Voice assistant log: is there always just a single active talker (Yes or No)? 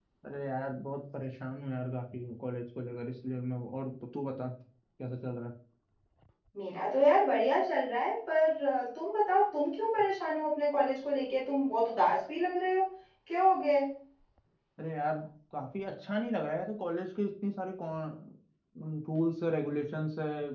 Yes